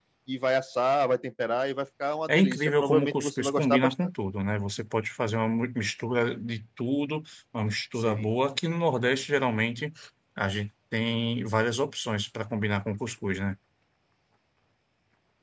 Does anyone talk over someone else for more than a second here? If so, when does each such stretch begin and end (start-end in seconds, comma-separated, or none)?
2.4-3.9